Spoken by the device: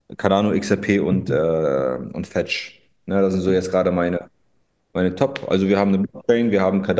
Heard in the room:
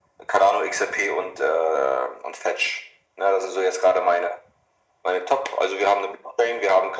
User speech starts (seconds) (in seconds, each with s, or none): none